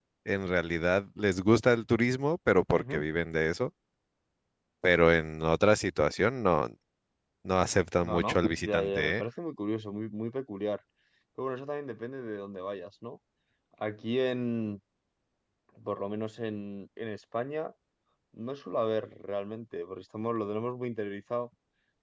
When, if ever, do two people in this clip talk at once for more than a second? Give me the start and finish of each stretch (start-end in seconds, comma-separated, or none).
8.0-9.2